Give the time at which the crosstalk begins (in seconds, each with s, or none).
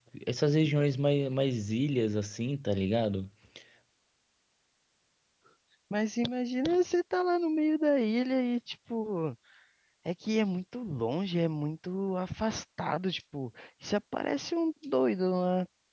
none